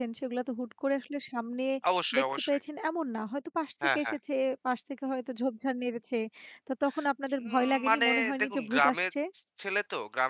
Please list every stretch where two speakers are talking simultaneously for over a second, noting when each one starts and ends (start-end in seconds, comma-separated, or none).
7.5-9.0